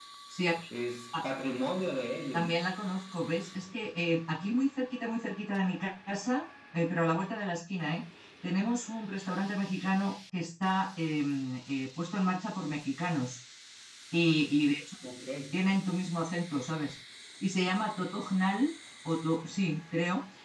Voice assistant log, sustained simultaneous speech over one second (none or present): none